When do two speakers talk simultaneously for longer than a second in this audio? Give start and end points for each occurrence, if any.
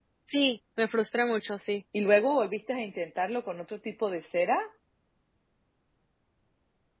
none

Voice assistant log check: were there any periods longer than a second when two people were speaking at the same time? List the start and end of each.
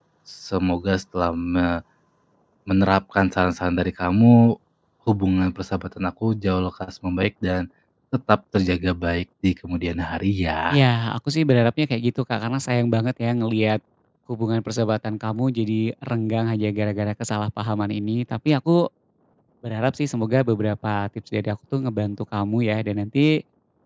none

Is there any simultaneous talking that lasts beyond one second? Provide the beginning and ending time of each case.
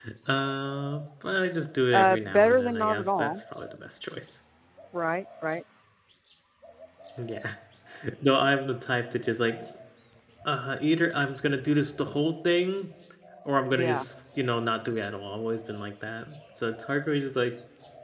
1.9-3.4

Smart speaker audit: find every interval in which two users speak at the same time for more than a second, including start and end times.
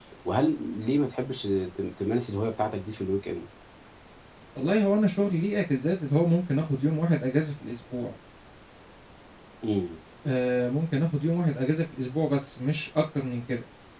none

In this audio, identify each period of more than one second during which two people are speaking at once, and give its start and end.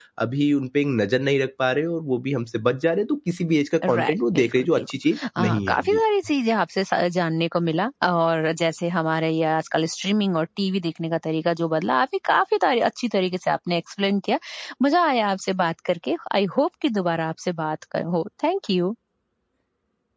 3.9-6.0

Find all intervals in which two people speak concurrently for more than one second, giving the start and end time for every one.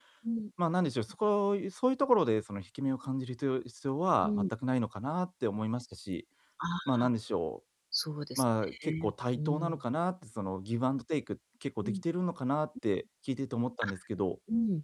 8.4-9.8

